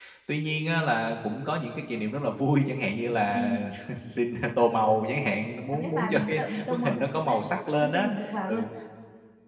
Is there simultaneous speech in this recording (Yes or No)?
Yes